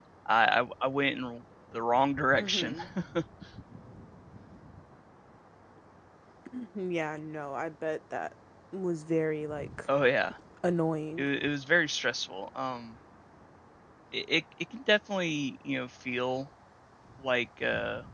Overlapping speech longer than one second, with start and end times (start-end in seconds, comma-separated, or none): none